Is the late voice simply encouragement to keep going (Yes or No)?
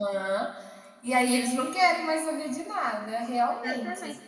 No